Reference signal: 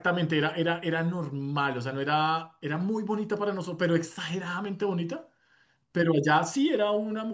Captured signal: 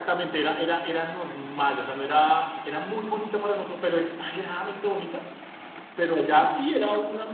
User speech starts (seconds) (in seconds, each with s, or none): none